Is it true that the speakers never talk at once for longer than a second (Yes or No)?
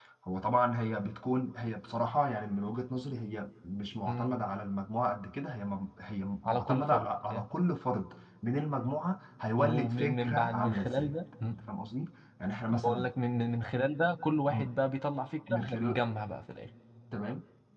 No